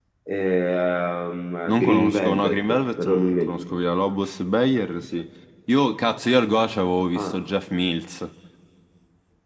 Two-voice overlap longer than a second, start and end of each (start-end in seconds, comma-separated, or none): 1.7-3.8